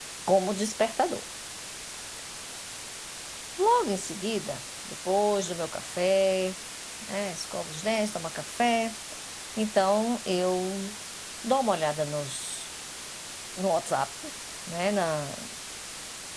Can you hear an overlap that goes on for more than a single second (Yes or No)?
No